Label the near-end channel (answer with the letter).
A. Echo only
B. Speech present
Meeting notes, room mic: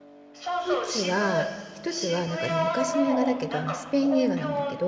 B